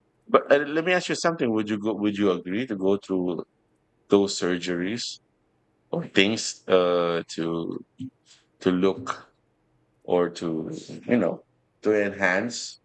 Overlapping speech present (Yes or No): No